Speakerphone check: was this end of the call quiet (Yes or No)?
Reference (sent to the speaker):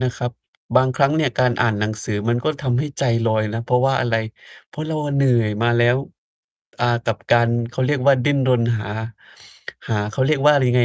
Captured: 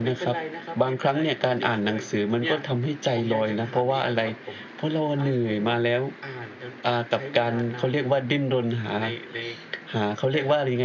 No